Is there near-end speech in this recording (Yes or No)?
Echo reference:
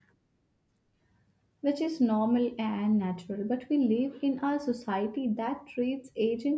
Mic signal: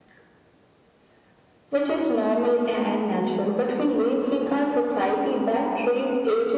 No